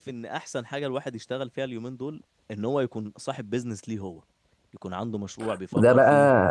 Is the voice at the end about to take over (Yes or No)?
Yes